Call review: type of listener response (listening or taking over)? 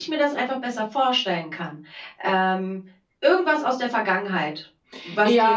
taking over